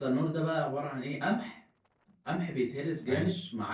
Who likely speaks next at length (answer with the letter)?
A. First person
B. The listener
A